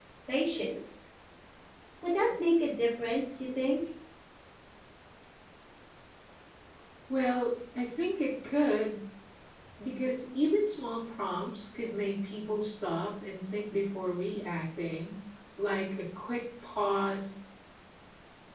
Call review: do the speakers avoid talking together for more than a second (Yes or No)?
Yes